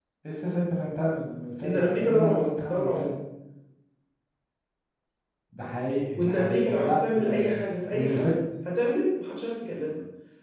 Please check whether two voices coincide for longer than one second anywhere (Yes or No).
Yes